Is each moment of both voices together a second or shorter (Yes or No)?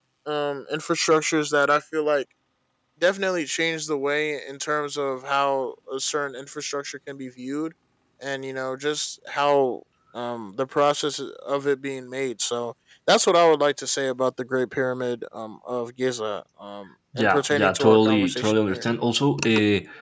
No